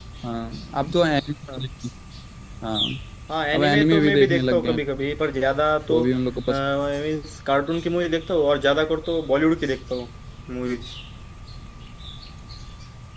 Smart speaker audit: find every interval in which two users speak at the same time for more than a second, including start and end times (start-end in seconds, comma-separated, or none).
3.5-4.8